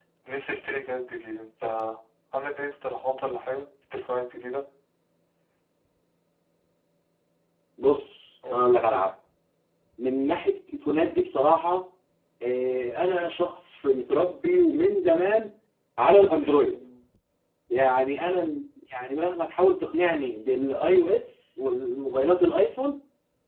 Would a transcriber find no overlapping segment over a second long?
Yes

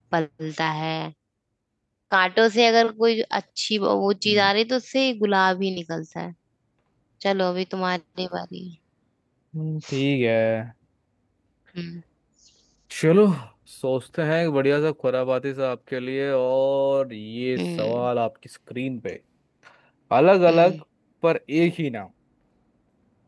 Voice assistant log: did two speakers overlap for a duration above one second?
No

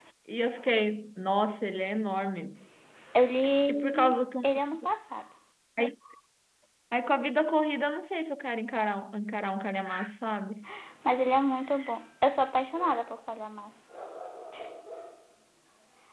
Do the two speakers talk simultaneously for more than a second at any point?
No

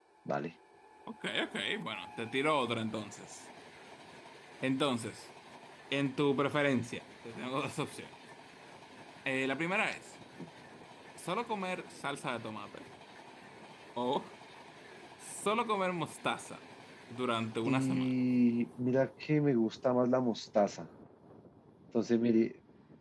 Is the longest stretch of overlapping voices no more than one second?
Yes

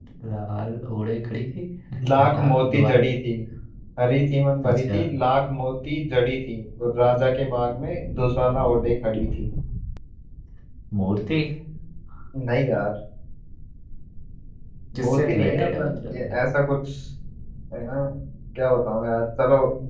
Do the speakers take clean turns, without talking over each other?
No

